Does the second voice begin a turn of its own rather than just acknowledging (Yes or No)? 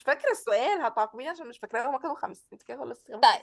Yes